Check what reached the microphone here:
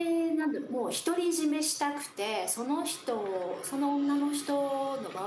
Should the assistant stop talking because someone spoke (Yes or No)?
Yes